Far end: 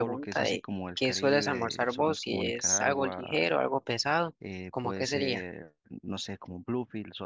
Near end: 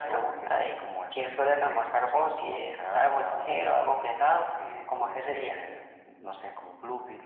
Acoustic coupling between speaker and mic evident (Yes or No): Yes